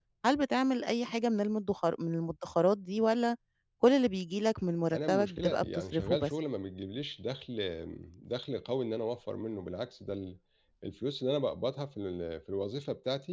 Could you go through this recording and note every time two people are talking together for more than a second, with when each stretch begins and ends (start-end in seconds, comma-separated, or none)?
4.9-6.3